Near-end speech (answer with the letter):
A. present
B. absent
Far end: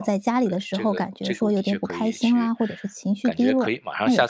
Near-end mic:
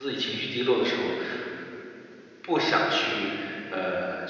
A